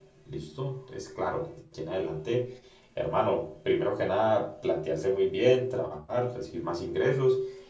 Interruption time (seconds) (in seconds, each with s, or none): none